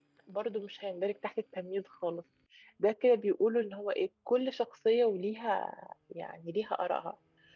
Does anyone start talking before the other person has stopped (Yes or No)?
No